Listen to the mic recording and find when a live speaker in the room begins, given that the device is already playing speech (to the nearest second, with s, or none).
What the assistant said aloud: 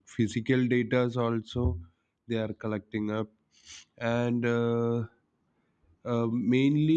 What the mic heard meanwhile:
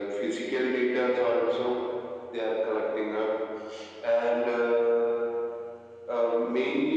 none